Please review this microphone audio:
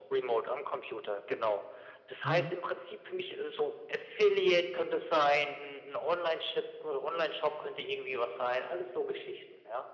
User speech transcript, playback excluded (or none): ja.